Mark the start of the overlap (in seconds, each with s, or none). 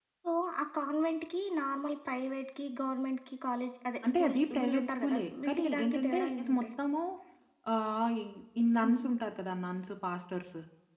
4.0 s